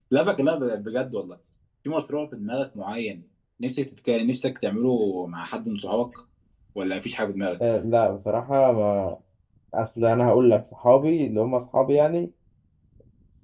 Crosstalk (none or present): none